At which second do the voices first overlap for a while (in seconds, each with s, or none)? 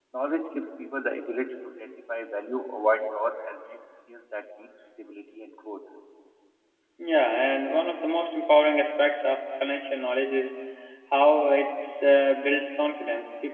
none